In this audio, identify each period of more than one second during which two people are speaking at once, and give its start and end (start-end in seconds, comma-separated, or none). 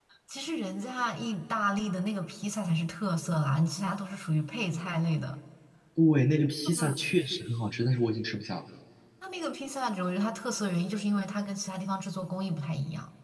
none